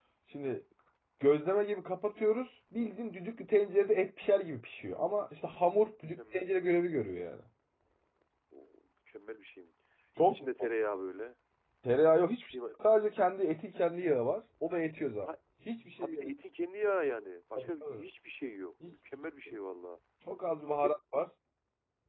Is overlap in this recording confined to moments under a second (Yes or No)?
Yes